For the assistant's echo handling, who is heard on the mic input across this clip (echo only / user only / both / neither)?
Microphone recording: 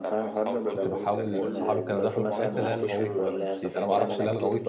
both